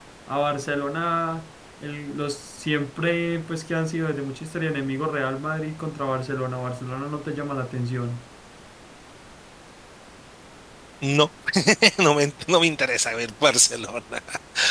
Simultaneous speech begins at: none

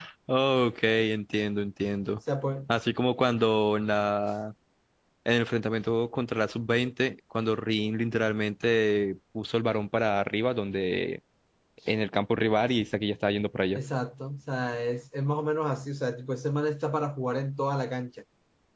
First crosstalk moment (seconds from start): none

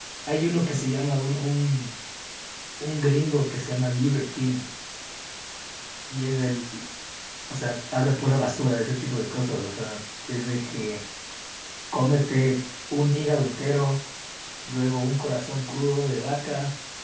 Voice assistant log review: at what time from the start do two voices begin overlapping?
none

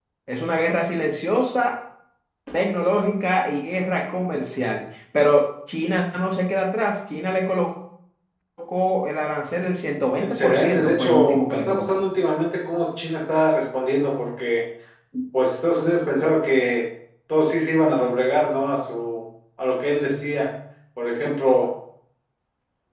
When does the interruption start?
10.2 s

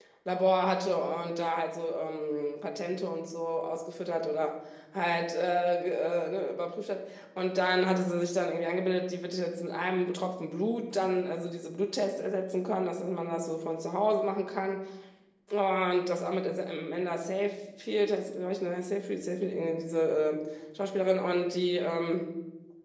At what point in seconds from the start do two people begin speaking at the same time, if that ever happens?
none

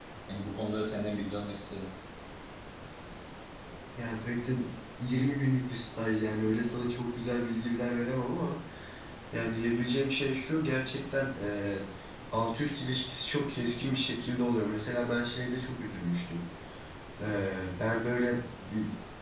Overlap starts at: none

